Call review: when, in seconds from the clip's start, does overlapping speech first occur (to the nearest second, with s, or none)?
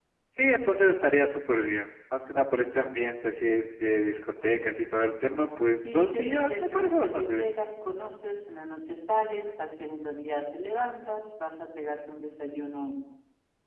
6 s